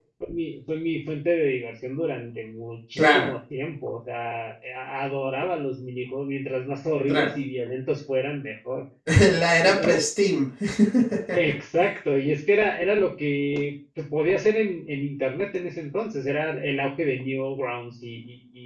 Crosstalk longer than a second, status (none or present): none